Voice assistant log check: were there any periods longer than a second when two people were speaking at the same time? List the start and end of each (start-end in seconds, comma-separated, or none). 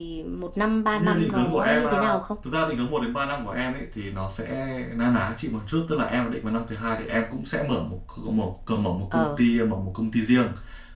0.9-2.2